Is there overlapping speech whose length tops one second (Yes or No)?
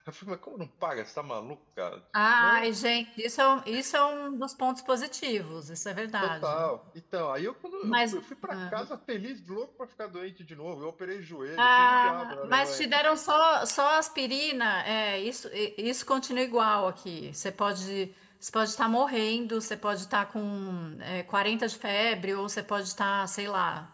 Yes